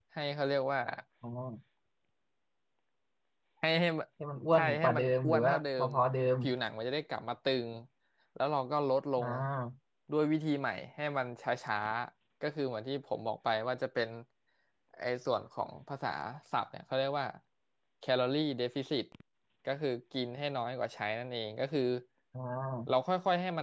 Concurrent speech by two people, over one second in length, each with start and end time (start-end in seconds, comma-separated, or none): 4.5-5.9